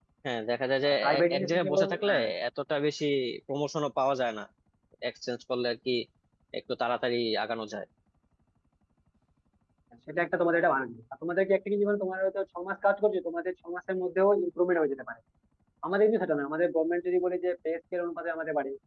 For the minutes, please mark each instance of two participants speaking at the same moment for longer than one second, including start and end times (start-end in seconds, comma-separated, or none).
0.9-2.2